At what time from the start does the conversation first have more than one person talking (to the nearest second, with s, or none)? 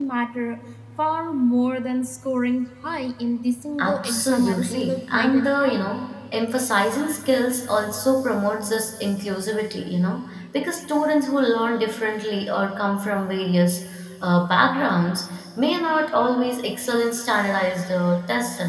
4 s